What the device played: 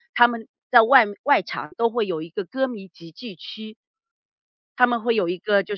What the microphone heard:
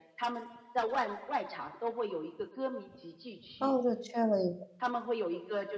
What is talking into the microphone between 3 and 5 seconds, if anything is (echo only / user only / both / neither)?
both